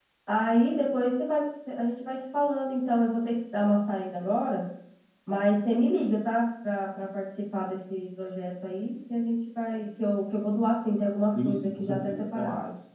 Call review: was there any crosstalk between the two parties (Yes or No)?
Yes